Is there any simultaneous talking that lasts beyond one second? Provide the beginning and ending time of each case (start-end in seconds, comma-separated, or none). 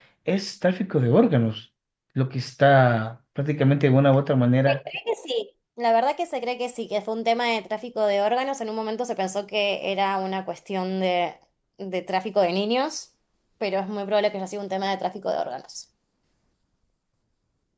none